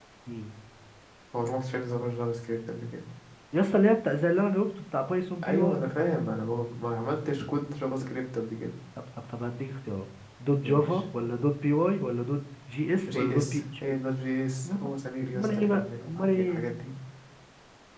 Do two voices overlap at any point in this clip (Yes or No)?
Yes